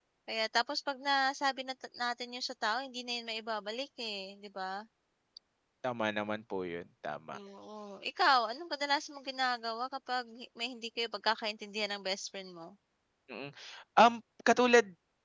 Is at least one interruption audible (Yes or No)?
No